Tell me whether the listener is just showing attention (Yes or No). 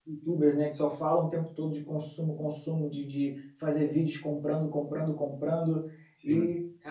Yes